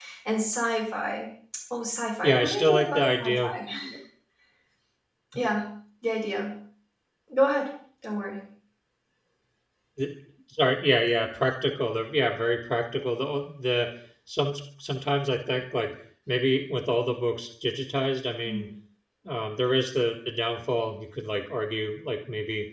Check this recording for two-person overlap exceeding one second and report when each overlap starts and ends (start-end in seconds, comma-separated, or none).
2.2-3.5